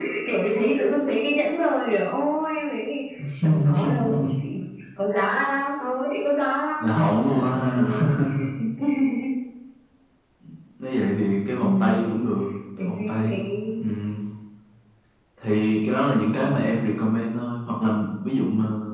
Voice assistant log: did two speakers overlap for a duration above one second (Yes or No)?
Yes